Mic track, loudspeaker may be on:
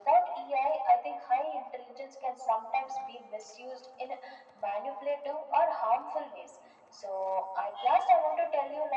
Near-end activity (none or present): none